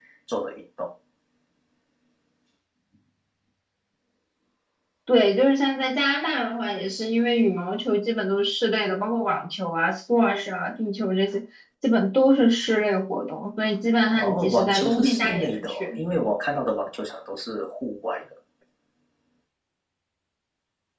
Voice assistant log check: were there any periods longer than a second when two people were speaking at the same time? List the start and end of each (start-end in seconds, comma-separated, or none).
14.1-16.0